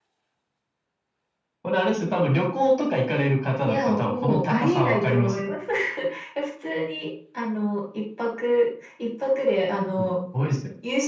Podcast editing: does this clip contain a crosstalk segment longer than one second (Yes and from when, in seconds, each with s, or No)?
Yes, from 3.7 s